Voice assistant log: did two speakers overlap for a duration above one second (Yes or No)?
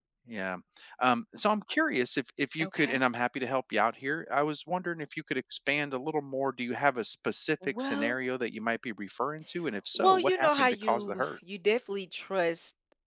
Yes